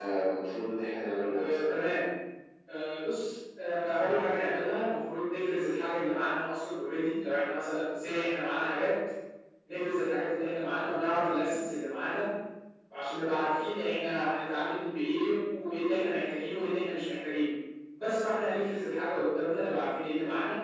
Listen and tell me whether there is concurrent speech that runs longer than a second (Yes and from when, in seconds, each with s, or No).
No